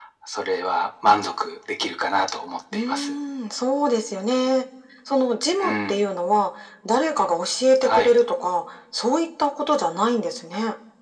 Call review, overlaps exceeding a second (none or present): none